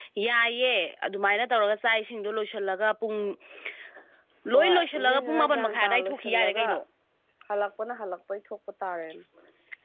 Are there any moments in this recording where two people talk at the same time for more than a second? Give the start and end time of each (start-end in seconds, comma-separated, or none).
4.5-6.7